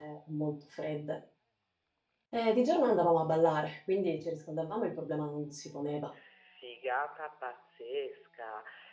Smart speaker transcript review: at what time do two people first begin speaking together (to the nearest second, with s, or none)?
none